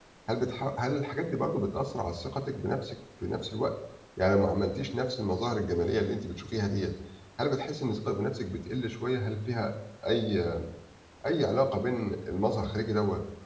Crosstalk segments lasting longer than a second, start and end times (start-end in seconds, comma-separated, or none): none